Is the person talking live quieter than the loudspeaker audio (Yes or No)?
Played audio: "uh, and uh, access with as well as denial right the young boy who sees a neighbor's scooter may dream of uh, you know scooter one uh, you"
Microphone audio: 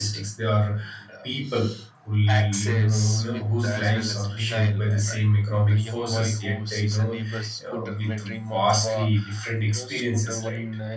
No